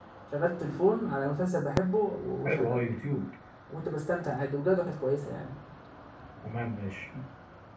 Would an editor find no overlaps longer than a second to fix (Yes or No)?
Yes